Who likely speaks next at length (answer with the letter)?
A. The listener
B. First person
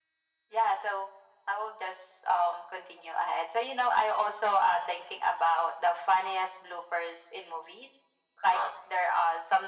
B